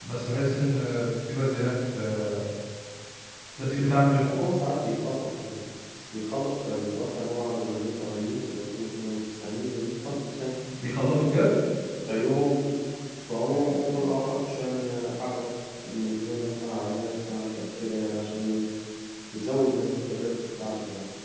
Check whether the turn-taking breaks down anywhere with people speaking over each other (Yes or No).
No